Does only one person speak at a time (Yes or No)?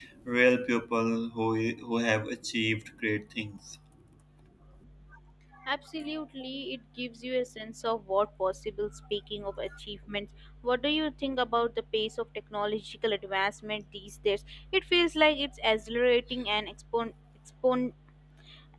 Yes